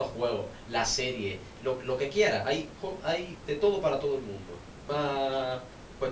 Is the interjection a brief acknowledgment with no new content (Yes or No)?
Yes